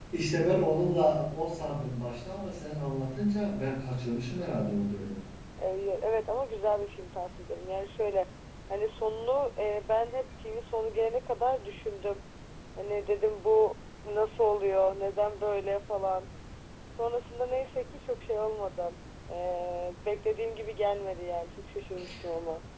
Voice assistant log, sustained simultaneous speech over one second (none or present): none